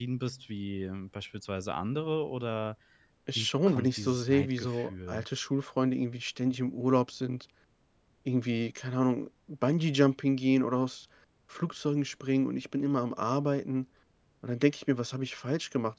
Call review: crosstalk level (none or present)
present